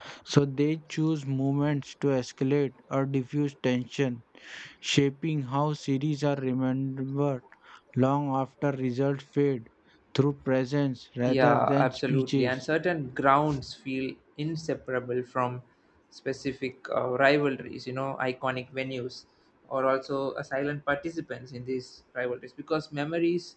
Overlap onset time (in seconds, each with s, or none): 11.3 s